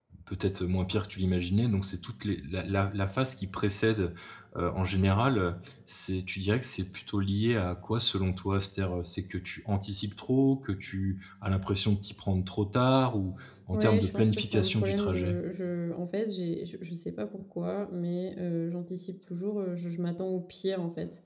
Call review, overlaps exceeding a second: present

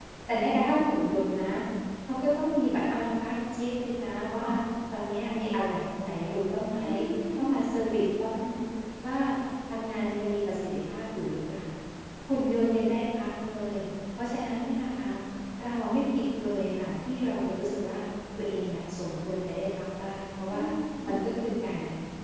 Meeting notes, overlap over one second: none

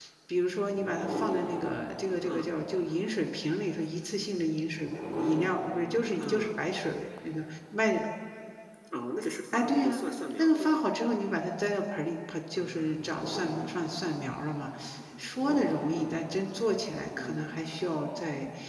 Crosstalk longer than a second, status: none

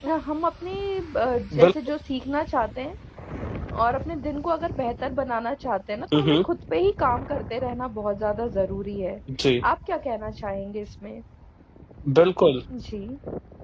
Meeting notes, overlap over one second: none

